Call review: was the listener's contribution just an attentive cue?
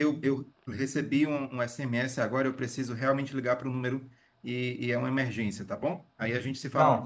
No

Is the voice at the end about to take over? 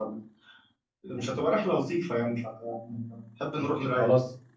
Yes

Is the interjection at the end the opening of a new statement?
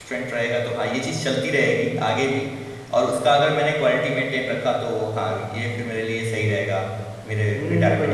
Yes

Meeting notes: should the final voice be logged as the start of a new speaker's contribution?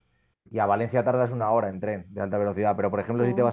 No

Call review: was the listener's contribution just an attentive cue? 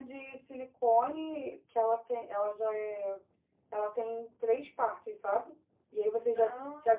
Yes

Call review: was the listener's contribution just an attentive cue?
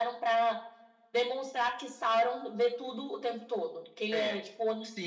No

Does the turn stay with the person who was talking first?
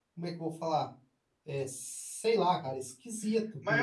No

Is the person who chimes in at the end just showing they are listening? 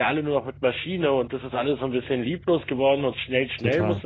No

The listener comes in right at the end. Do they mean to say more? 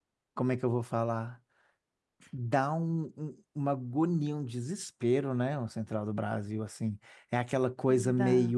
No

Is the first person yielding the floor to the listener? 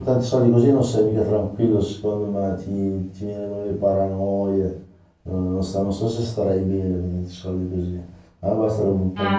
Yes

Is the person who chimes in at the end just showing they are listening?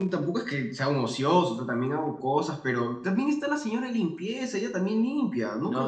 No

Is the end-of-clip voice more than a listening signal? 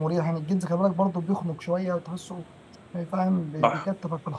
No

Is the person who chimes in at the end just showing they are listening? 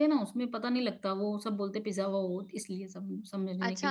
No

